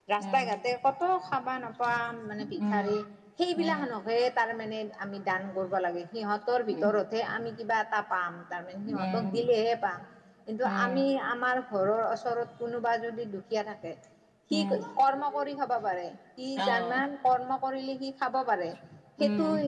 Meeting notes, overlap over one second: none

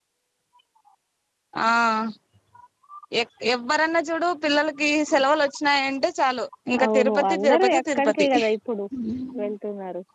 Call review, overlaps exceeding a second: present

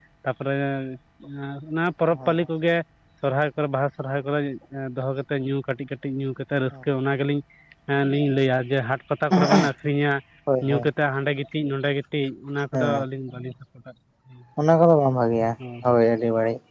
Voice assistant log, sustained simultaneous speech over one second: none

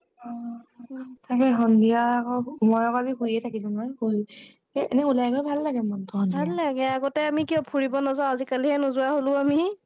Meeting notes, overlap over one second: none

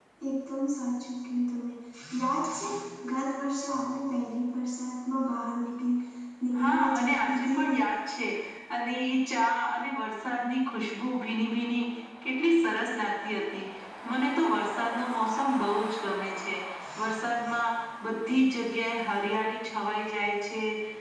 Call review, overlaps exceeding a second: present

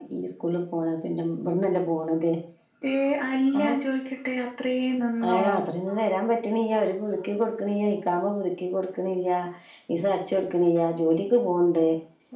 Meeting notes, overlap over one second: none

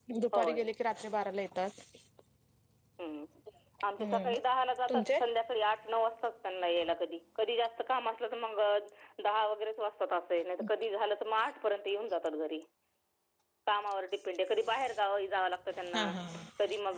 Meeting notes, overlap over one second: none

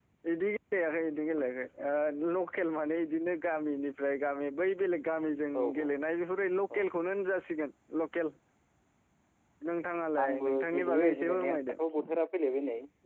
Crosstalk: present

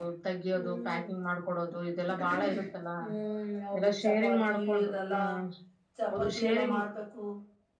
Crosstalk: present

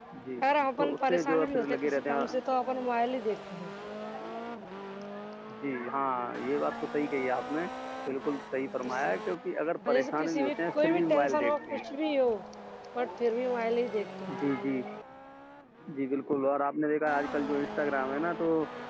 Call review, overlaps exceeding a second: present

